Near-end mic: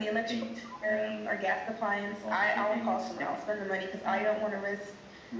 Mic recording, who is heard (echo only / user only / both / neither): echo only